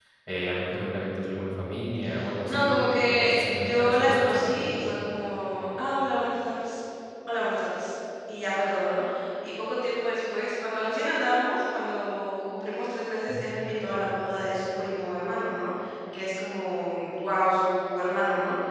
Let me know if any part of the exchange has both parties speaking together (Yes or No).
Yes